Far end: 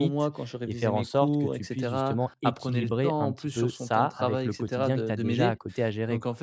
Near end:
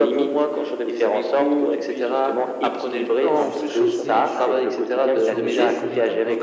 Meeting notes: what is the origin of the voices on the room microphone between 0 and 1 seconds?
echo only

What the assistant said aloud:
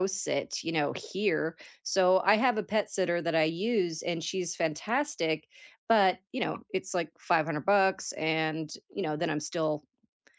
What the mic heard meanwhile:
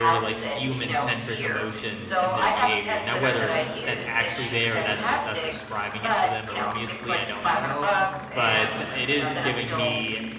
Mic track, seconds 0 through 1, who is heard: both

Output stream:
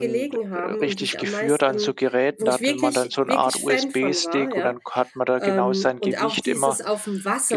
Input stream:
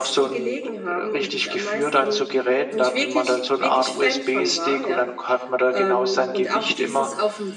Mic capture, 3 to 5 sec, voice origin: echo only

